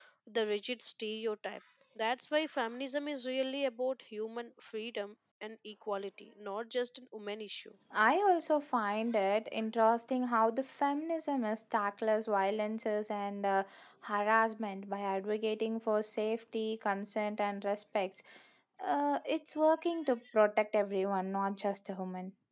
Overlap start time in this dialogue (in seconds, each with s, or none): none